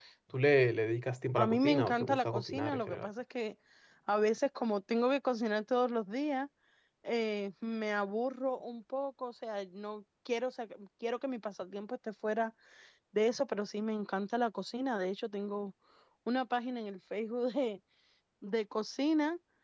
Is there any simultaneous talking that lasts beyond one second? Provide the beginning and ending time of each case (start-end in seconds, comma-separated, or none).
1.4-3.1